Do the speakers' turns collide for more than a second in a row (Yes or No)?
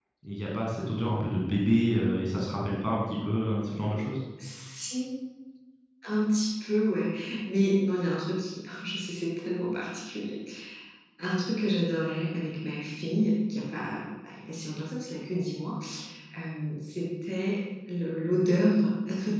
No